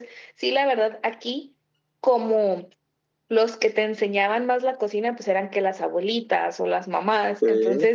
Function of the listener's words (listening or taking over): listening